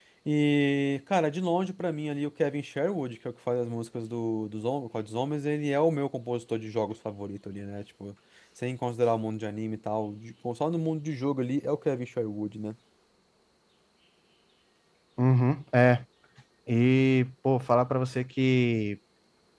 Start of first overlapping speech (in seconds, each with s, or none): none